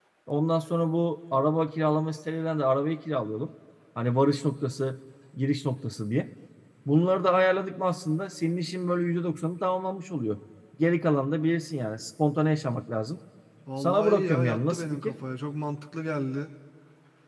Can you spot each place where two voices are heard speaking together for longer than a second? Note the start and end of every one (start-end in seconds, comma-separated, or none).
13.8-15.2